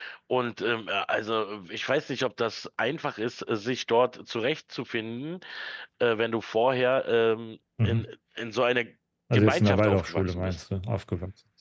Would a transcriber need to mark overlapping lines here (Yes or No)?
Yes